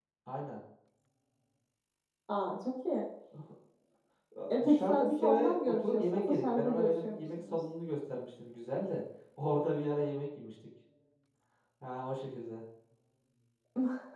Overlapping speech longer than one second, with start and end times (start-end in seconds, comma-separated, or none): 4.5-7.7